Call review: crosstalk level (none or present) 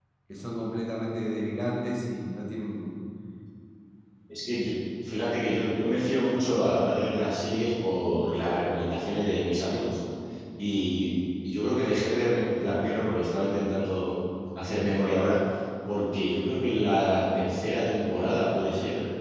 none